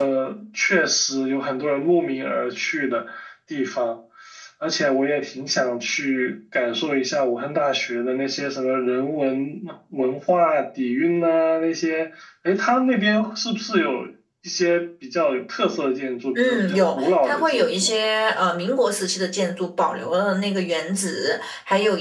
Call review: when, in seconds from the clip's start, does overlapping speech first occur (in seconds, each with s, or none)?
16.4 s